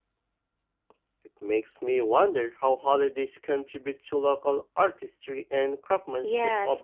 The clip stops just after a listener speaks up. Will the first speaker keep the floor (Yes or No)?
No